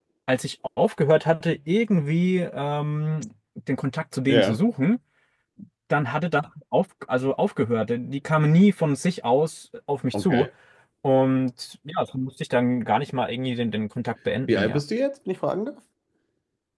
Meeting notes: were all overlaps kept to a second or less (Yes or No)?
Yes